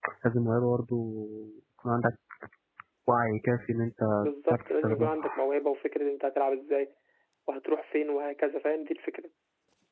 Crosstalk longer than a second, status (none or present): present